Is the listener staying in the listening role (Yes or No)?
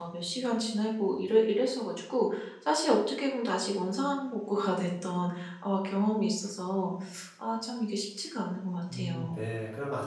No